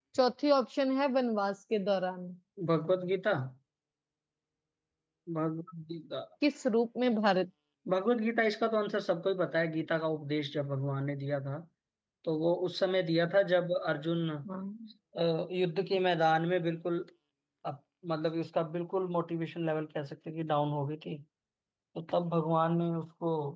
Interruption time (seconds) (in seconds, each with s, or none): none